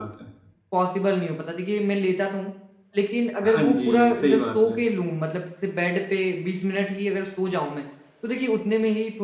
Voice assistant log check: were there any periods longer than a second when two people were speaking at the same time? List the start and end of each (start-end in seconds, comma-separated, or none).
3.4-4.7